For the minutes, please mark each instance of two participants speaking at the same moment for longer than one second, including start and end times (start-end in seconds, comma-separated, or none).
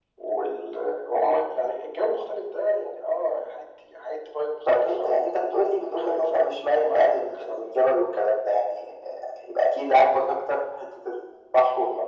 5.9-7.7